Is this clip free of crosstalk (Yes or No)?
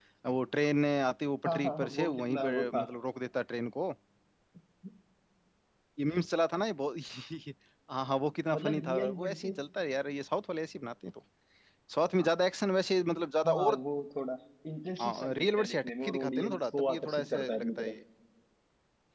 No